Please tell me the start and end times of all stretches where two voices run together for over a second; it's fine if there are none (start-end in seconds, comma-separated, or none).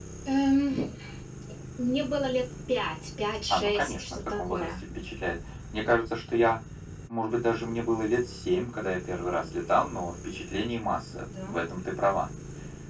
3.5-4.7